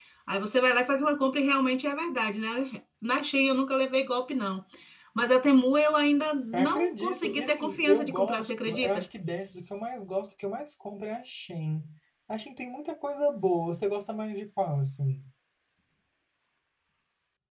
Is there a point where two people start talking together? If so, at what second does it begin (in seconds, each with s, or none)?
6.5 s